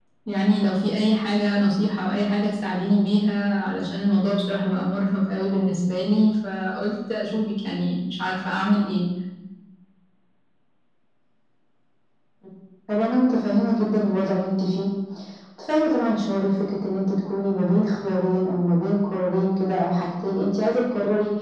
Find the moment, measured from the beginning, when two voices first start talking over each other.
none

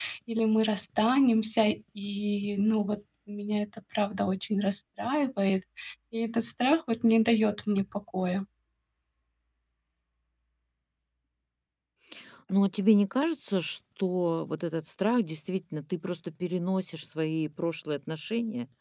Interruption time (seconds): none

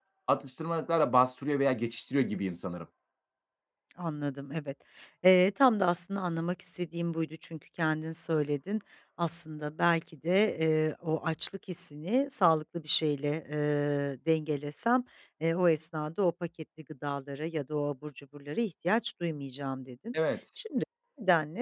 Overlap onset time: none

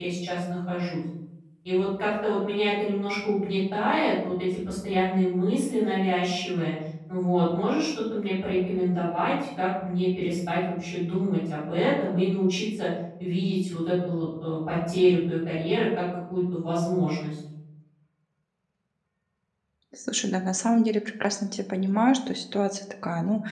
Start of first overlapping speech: none

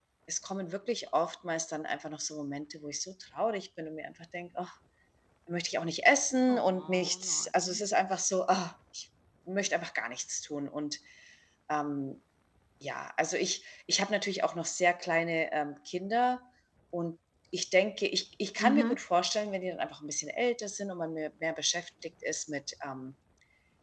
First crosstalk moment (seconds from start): 6.5 s

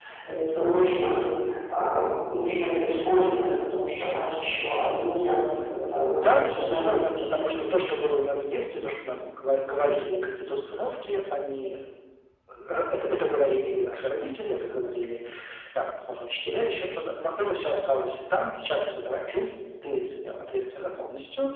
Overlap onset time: 6.1 s

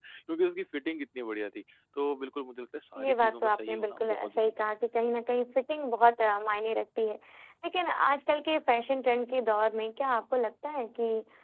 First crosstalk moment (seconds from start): 3.0 s

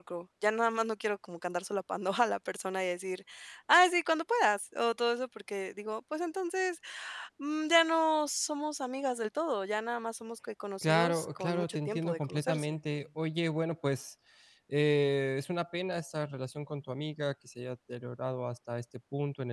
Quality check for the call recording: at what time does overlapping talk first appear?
10.8 s

